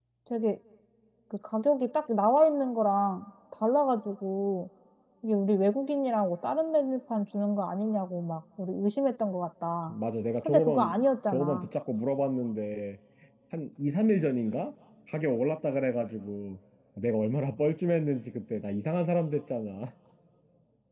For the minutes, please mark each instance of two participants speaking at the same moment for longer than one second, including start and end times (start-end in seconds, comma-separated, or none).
10.4-11.7